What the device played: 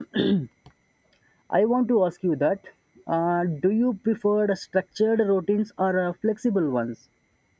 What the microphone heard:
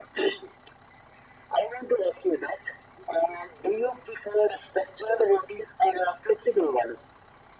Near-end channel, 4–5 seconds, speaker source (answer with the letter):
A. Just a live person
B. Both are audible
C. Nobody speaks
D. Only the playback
D